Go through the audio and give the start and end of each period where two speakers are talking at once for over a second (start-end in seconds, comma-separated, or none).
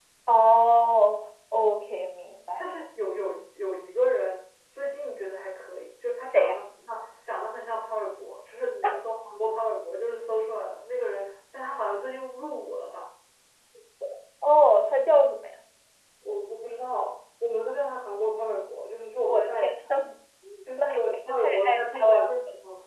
20.8-22.1